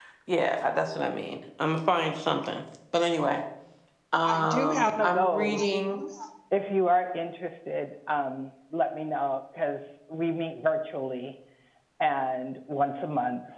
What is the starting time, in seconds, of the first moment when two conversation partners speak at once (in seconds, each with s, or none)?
4.2 s